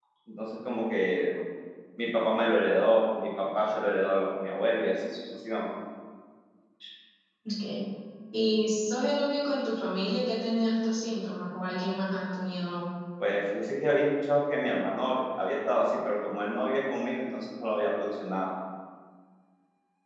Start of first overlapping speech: none

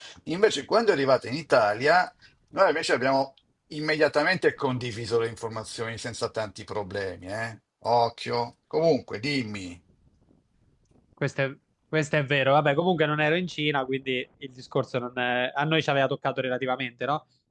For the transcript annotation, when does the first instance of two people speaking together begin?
none

